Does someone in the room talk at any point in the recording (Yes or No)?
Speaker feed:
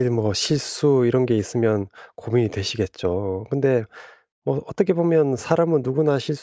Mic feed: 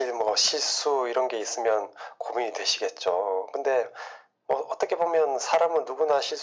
No